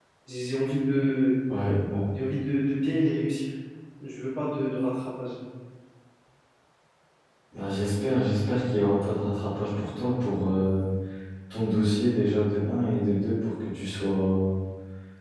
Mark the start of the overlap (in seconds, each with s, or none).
none